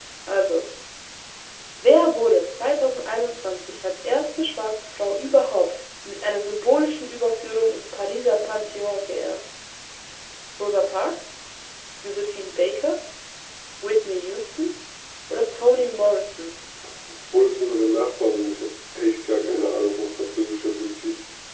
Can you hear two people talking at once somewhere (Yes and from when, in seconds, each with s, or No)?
No